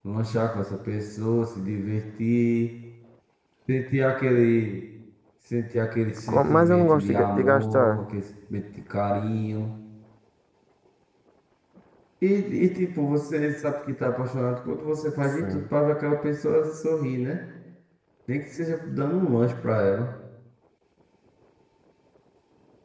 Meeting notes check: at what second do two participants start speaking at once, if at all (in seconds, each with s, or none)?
6.3 s